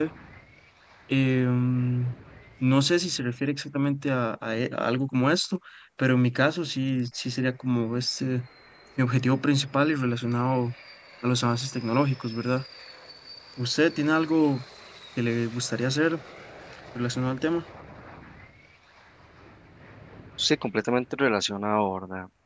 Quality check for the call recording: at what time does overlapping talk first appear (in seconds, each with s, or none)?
none